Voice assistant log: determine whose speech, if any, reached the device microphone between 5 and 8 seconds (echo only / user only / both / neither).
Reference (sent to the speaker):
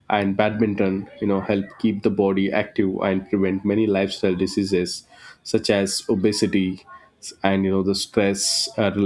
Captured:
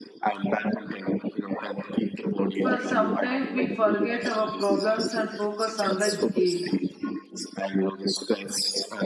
both